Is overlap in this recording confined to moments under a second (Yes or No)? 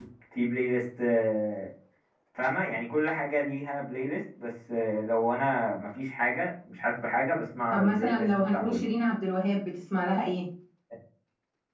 No